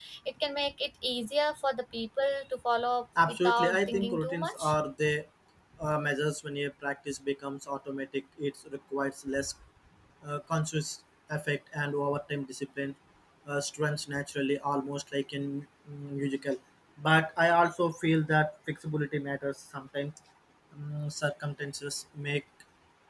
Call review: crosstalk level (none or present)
present